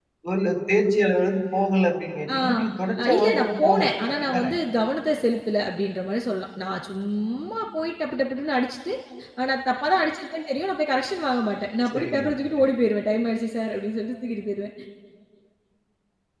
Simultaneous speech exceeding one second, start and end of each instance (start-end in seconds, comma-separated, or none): 3.0-4.5